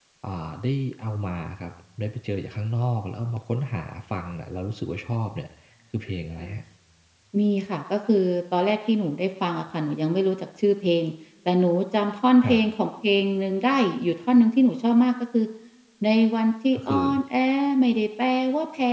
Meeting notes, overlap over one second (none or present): none